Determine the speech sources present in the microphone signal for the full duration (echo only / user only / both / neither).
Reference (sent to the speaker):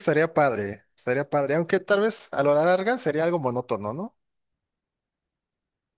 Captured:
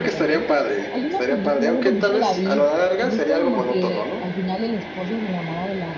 both